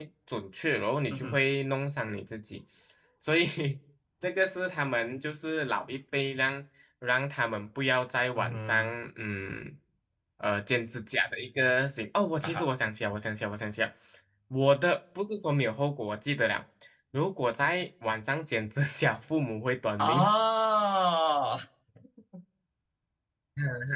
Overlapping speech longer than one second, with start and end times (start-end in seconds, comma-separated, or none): none